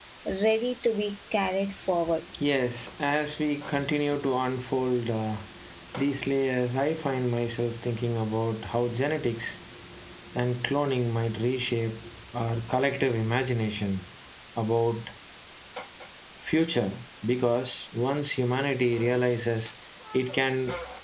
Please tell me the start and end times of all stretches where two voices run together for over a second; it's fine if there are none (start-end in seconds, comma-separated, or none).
none